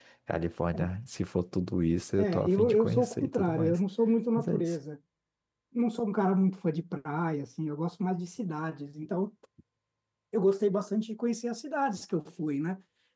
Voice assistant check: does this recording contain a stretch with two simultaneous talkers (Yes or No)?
Yes